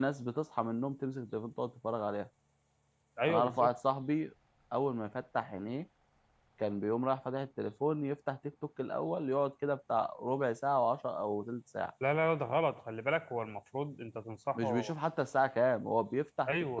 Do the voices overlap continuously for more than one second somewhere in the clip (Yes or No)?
No